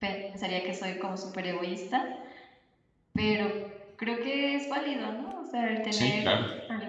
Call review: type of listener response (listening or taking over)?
listening